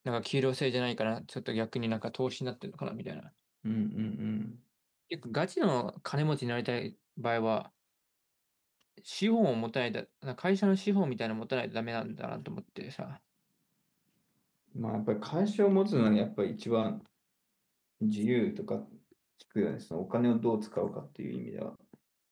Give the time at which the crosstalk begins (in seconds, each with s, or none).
none